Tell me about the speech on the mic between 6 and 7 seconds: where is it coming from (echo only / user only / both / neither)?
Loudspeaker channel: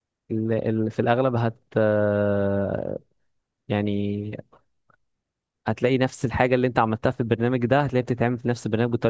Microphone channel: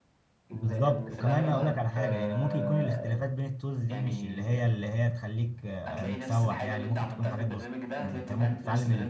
both